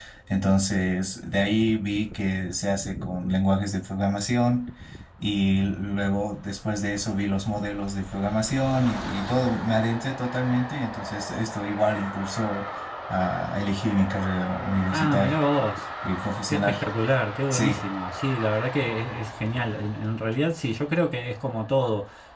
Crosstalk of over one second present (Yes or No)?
No